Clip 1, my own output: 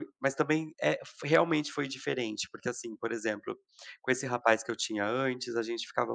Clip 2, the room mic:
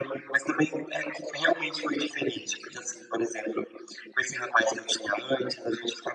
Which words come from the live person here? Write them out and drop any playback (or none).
none